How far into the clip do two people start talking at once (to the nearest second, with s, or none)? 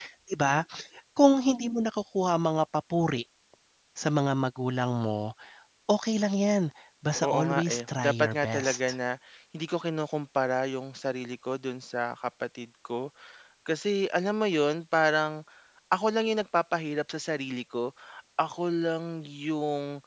7 s